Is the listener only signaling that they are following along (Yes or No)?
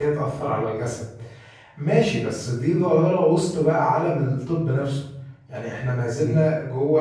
Yes